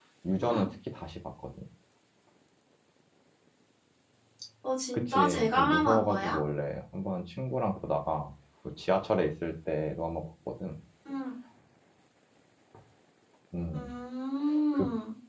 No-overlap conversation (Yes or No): No